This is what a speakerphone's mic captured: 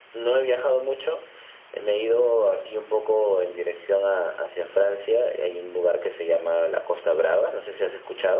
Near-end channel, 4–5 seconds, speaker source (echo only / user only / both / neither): echo only